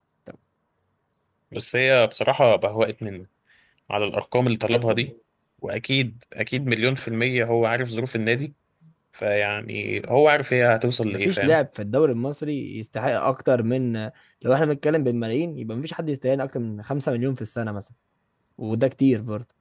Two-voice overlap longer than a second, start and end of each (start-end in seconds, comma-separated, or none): none